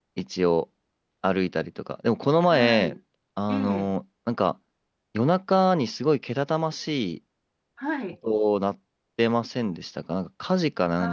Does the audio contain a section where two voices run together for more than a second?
No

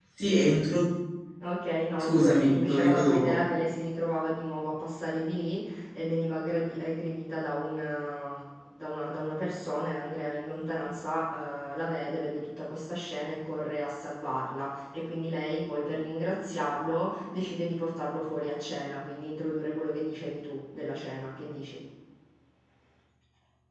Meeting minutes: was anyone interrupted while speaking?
Yes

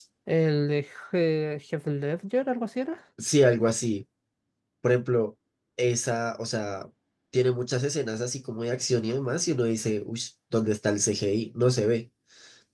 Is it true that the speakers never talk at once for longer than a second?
Yes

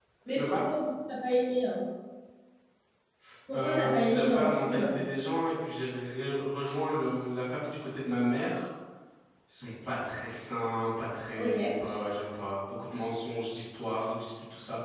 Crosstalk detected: Yes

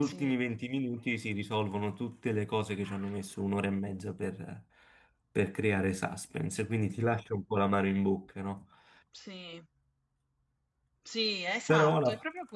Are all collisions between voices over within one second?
Yes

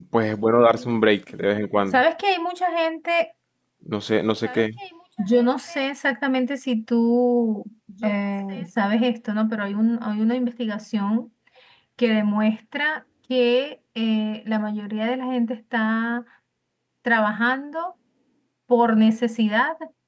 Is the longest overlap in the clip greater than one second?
No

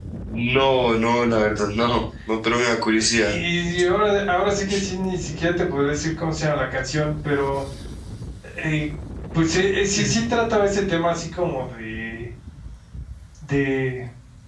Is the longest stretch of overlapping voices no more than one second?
Yes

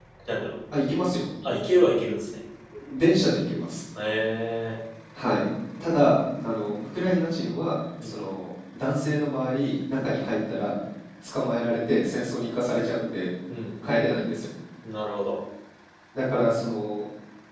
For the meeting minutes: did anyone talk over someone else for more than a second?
No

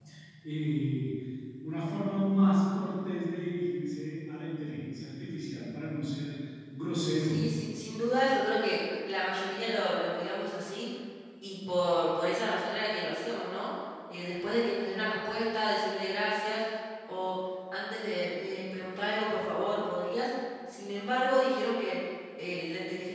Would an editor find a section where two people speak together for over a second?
No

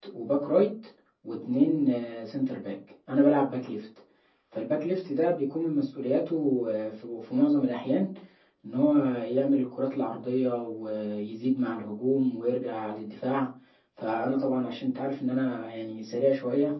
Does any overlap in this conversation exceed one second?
No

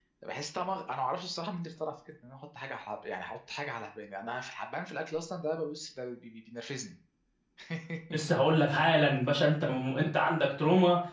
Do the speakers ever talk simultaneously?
No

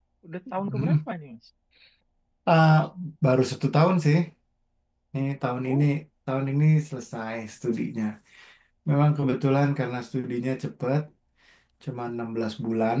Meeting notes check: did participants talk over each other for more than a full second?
No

